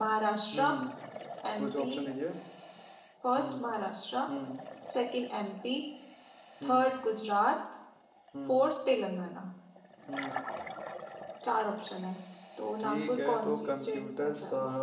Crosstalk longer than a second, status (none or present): present